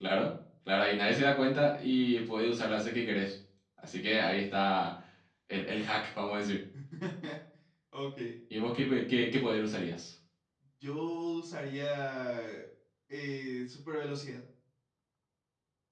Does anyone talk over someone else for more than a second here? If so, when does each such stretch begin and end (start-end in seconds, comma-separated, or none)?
none